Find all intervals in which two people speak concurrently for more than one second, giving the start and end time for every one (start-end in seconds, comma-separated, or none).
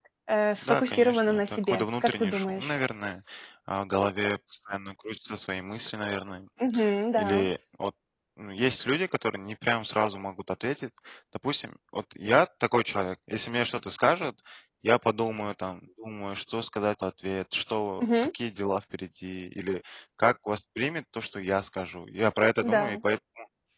0.6-2.7